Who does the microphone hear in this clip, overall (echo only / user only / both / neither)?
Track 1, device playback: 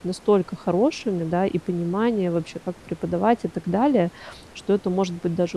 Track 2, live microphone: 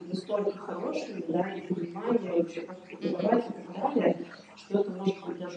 both